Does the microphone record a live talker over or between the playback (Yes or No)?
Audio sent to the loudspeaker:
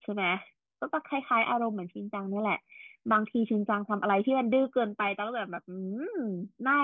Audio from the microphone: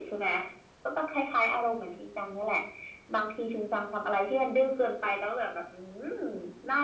No